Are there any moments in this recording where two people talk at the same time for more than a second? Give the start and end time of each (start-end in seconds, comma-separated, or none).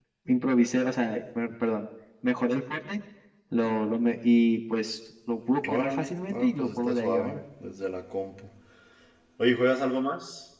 5.7-7.4